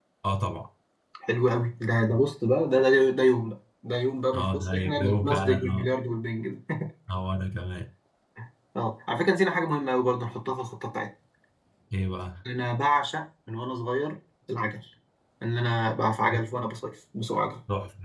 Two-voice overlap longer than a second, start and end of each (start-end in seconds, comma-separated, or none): 4.3-5.9